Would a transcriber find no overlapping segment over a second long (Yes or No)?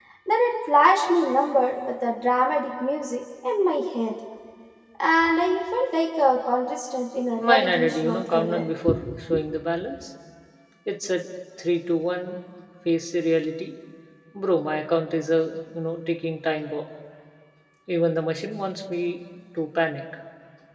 No